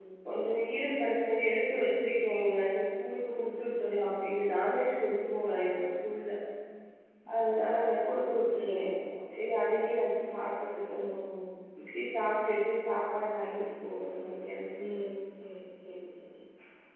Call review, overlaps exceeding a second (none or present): none